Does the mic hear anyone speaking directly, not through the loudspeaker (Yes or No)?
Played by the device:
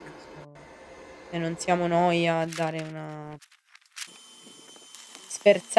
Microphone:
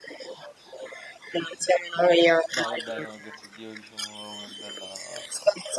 Yes